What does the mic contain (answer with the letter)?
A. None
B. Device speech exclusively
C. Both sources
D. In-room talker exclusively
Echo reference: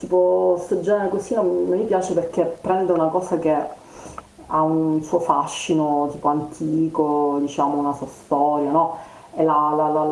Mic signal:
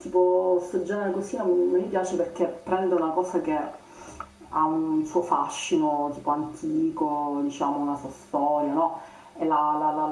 B